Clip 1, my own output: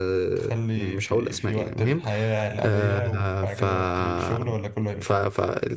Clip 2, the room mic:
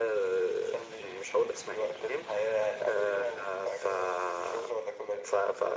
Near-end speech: none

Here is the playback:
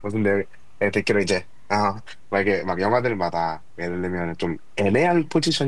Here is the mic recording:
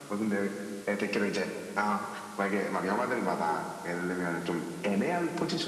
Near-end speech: present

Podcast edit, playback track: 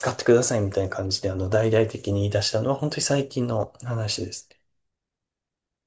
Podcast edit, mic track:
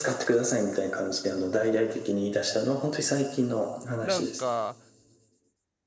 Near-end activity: present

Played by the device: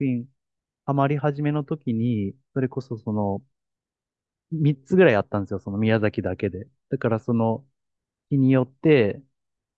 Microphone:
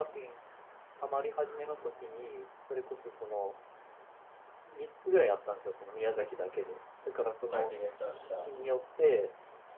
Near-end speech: present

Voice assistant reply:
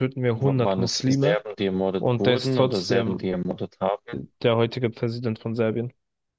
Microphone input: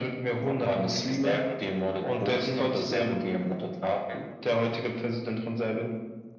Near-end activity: none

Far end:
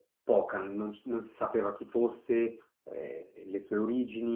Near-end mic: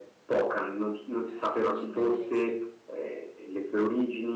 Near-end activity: present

